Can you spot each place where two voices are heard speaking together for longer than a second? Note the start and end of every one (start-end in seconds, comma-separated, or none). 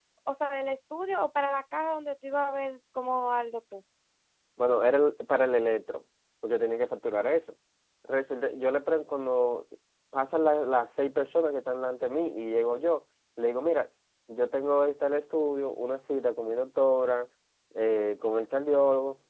none